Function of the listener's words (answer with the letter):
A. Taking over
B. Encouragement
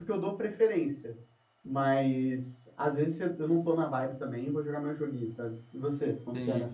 A